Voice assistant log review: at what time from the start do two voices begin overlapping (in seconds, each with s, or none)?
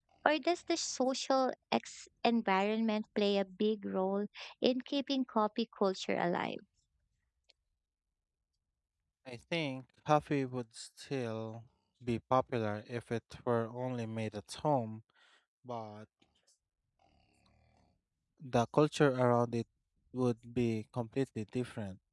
none